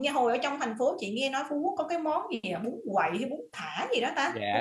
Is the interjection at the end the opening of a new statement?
Yes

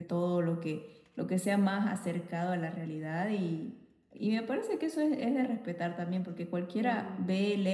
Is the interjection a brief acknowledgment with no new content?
Yes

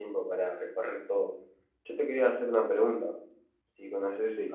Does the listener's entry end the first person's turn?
No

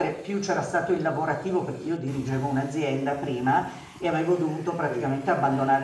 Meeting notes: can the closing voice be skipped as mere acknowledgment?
Yes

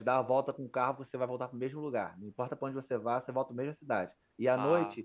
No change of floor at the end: Yes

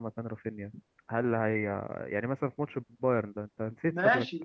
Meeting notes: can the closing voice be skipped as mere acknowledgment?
No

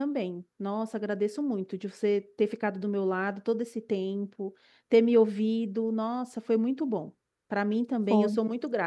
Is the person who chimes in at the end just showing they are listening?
Yes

